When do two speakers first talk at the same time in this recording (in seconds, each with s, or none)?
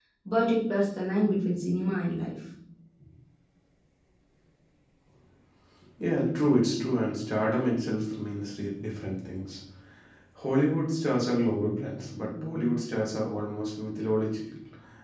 none